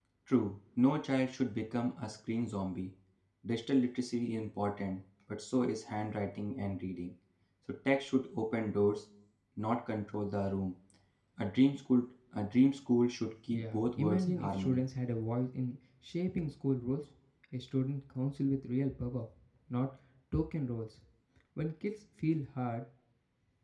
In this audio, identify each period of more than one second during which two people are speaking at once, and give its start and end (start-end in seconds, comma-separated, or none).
13.5-14.8